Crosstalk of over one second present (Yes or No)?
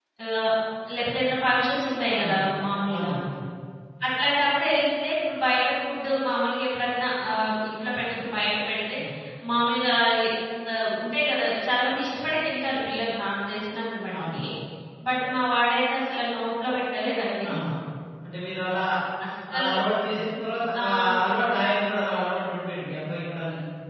No